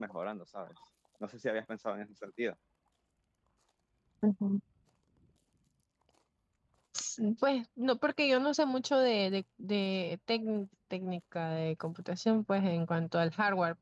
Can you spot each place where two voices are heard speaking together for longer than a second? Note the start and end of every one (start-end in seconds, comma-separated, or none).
none